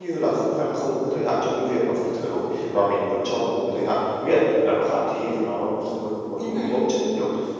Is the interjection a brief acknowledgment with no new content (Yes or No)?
Yes